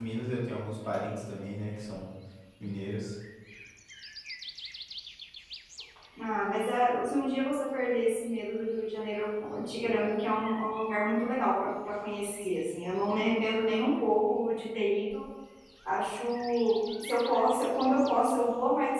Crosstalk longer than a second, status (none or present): none